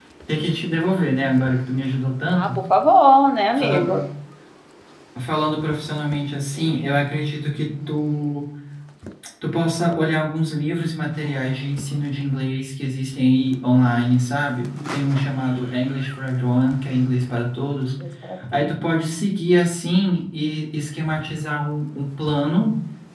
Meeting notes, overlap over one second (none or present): none